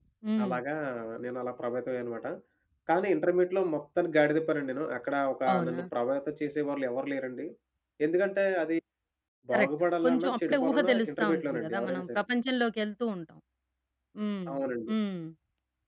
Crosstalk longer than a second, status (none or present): present